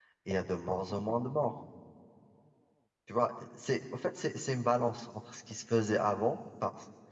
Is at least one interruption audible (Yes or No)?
No